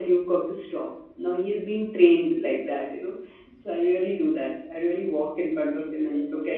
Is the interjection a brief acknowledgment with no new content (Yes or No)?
No